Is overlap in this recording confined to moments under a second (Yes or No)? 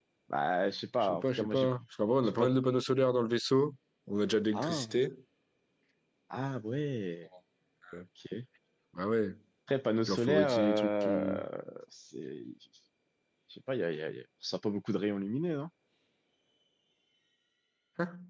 No